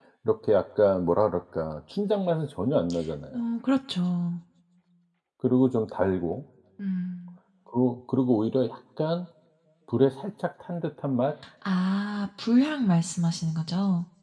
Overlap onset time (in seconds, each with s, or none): none